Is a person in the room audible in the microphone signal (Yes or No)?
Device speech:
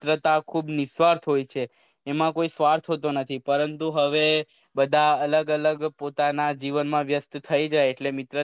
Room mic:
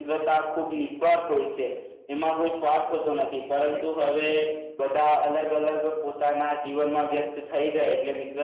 Yes